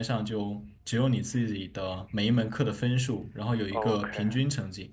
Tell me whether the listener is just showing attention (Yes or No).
Yes